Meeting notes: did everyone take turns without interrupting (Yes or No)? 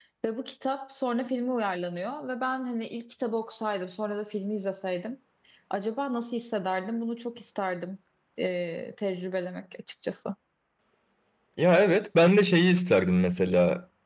Yes